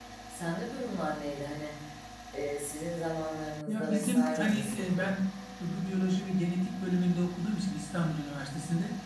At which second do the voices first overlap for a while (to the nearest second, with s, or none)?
4 s